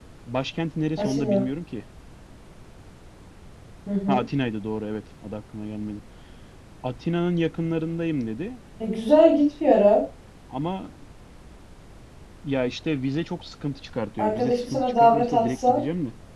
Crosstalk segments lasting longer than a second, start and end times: 14.2-15.8

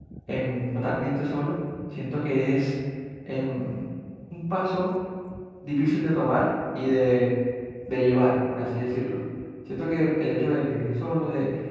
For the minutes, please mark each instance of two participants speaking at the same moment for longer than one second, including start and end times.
none

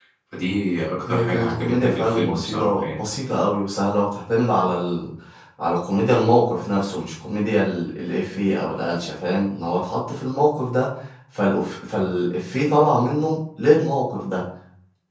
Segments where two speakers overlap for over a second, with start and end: 1.1-3.0

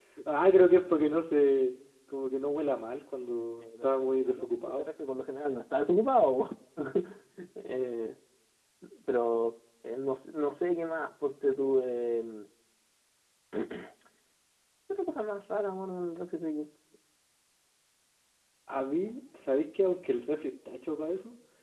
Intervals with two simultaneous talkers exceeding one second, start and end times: 3.6-4.9

